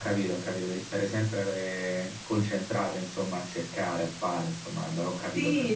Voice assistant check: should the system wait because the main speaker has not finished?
No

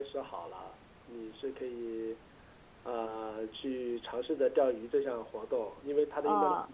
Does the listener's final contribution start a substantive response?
No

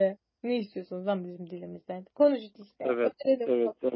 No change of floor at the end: No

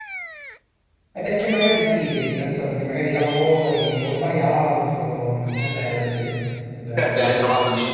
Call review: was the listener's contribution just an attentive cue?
No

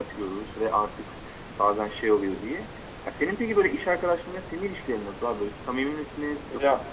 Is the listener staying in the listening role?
No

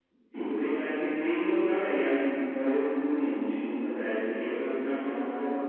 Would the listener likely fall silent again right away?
Yes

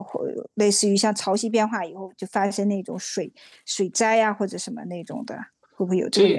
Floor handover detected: Yes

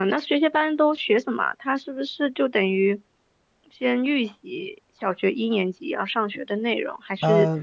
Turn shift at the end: No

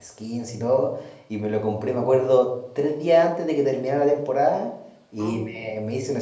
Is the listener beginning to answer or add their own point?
No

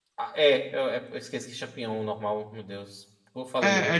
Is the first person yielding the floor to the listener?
Yes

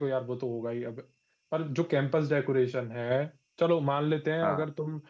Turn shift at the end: No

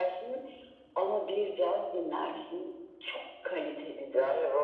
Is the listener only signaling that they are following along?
No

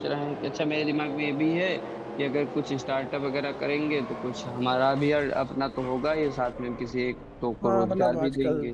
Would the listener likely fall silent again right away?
No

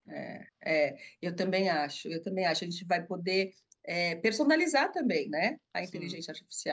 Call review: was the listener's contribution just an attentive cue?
Yes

